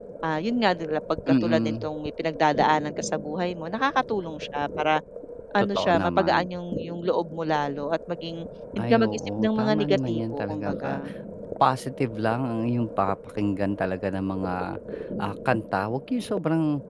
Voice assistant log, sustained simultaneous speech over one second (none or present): present